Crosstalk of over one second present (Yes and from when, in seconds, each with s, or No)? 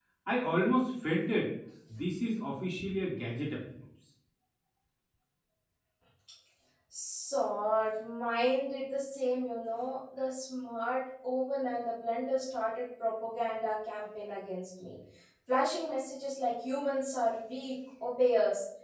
No